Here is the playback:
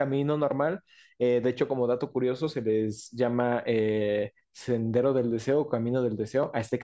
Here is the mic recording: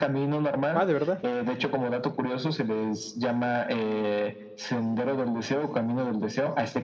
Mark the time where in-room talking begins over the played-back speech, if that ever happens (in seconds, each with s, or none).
0.7 s